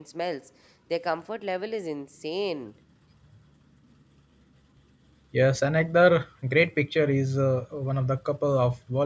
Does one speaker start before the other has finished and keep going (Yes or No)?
No